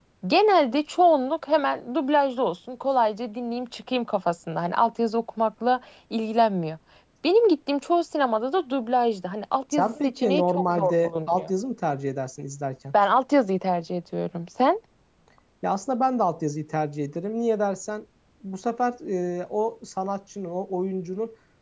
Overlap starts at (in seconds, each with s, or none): 9.7 s